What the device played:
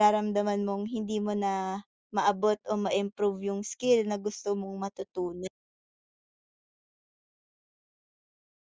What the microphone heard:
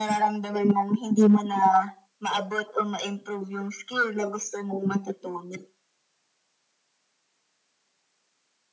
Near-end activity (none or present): none